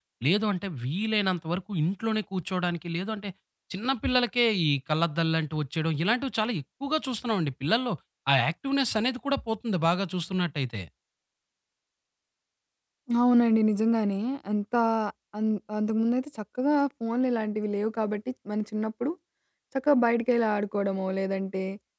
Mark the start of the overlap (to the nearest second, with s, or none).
none